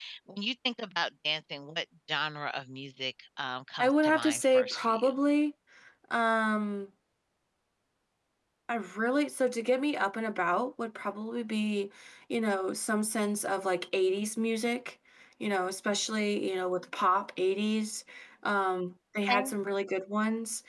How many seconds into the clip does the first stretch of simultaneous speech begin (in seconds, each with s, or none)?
3.8 s